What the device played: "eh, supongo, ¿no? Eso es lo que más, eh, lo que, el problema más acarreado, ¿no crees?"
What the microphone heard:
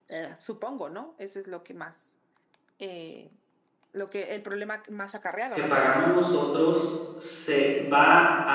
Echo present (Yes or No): Yes